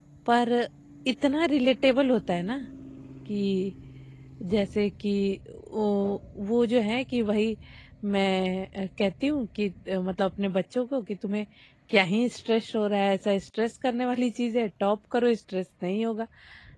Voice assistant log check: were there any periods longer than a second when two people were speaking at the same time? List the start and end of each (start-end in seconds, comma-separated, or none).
none